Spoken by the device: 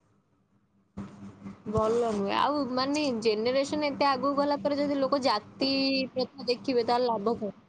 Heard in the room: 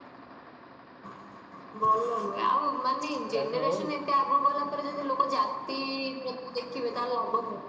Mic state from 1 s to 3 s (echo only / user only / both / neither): echo only